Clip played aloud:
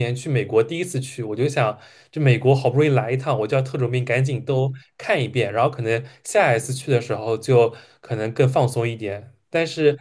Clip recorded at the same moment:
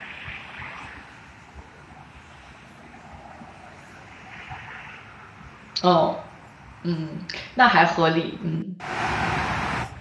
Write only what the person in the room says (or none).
嗯嗯，那还合理，嗯